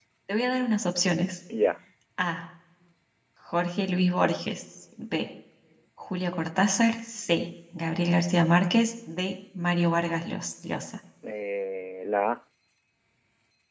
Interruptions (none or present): none